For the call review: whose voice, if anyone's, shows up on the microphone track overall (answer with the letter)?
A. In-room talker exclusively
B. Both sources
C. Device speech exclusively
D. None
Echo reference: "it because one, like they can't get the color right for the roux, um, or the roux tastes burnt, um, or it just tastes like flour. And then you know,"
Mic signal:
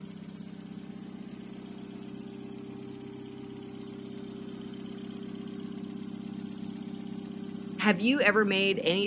A